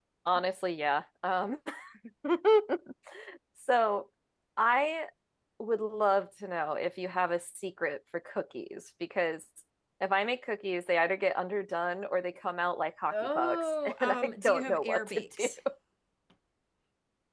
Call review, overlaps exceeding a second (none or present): present